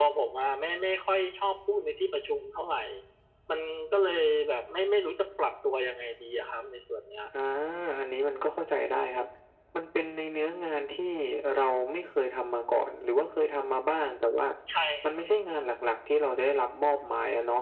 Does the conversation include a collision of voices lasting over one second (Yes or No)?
No